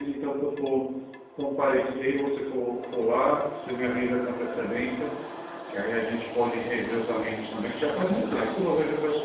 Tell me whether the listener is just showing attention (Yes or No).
Yes